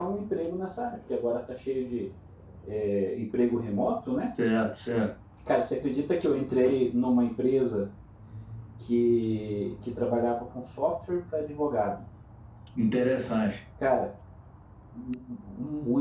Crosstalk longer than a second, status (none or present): none